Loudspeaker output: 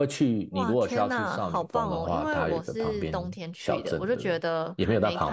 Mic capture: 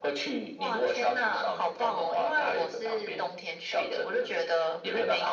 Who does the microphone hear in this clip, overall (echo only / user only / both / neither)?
echo only